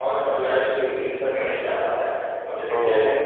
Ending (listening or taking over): listening